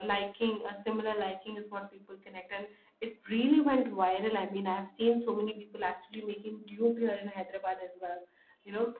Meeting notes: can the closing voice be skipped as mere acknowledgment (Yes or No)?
Yes